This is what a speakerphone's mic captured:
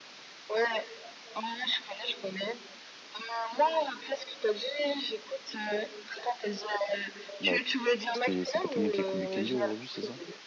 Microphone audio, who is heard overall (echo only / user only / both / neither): both